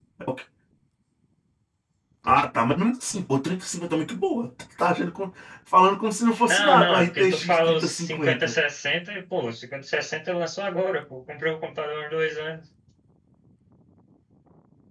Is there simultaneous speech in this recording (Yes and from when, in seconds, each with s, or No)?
Yes, from 6.5 s